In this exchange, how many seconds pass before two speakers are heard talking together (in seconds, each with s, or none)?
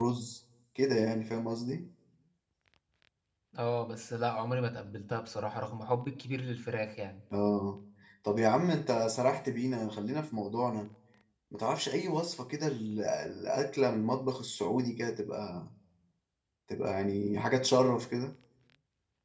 none